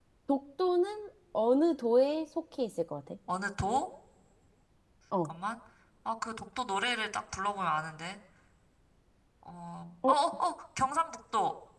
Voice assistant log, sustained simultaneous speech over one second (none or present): none